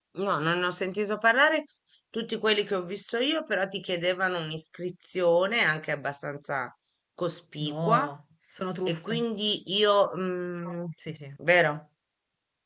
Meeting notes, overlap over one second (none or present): none